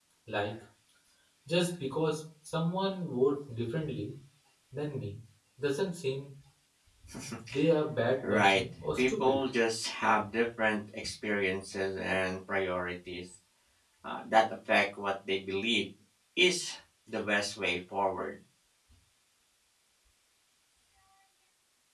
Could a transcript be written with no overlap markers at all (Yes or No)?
No